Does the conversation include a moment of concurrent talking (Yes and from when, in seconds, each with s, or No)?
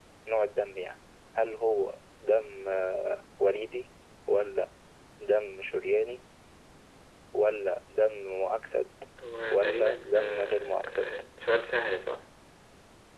Yes, from 9.5 s